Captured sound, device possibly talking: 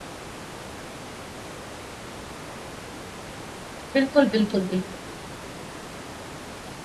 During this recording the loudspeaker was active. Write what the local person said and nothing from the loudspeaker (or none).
बिल्कुल बिल्कुल बिल्कुल